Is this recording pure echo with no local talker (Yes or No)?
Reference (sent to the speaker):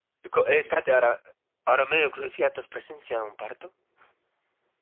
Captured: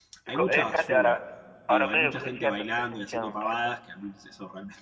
No